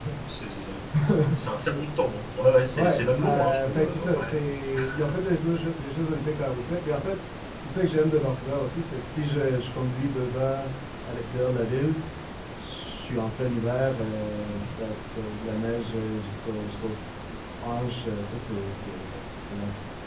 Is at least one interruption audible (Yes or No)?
Yes